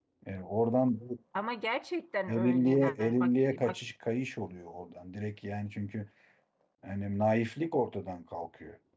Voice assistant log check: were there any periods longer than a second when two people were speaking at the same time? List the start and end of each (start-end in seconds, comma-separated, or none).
2.3-3.8